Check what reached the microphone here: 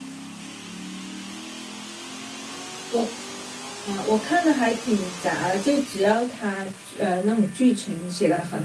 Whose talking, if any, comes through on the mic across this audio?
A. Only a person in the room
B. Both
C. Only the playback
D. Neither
A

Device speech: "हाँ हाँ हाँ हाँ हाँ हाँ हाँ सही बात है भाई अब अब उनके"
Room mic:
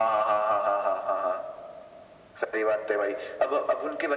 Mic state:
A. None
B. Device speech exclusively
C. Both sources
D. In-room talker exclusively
B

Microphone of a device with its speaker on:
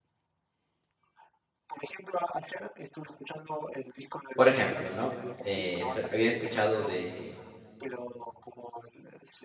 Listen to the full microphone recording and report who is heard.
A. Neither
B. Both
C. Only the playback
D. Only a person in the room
B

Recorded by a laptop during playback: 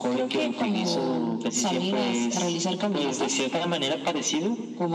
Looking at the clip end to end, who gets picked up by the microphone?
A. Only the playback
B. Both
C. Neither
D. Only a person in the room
A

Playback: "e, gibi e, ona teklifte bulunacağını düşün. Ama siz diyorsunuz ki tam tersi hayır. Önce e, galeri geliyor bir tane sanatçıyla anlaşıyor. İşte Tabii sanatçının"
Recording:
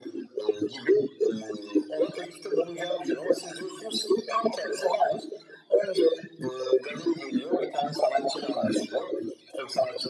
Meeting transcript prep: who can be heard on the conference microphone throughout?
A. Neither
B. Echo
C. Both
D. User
B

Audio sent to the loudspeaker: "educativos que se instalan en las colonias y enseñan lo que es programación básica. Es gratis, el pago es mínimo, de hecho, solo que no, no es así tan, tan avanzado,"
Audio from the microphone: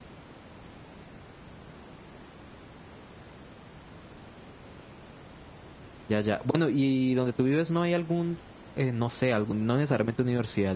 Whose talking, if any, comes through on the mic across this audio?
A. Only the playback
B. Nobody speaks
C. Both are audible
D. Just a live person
D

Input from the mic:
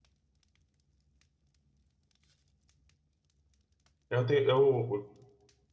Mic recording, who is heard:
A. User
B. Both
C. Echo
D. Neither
A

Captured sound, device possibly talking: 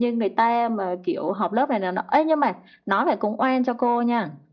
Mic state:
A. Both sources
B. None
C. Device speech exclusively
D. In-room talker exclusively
C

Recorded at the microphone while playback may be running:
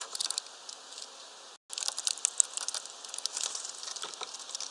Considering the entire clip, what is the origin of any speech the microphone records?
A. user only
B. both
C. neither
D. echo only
C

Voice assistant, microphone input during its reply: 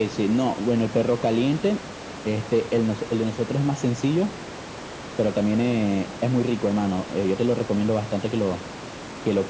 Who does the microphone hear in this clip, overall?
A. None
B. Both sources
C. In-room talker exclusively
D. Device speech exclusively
D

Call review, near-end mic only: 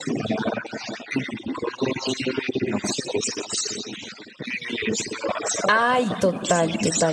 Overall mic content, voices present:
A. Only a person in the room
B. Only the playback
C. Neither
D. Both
D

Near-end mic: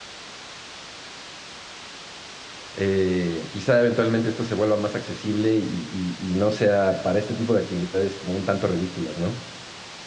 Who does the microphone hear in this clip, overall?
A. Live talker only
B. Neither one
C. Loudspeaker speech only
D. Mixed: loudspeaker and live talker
A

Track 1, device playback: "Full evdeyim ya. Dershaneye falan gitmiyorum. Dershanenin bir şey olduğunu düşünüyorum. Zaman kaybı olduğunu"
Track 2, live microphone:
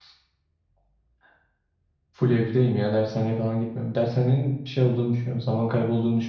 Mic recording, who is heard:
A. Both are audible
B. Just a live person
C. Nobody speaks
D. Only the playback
D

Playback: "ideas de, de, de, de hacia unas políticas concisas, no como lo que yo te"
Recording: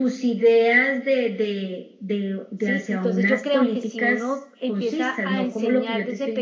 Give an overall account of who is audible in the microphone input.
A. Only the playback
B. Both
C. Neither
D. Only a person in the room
B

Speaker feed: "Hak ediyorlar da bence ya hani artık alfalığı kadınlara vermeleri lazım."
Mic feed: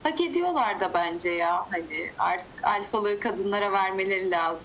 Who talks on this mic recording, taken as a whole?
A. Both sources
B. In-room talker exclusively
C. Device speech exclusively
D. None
C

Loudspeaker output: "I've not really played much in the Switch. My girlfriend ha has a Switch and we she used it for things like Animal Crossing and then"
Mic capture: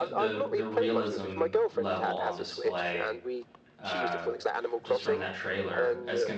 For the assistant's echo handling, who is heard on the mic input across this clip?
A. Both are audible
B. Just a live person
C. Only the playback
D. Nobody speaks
A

